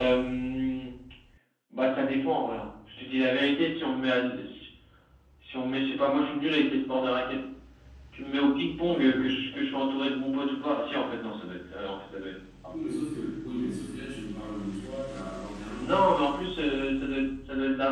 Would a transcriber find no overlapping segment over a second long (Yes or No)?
Yes